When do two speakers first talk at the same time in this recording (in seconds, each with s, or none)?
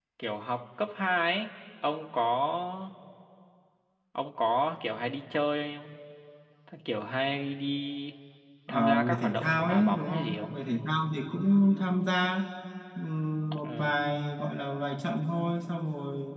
8.7 s